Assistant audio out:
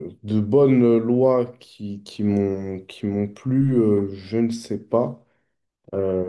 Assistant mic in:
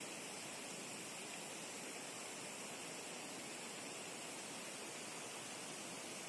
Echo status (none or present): none